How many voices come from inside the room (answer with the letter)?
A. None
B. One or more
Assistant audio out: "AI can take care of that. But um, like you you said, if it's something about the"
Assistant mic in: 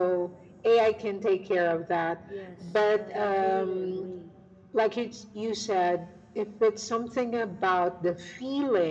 B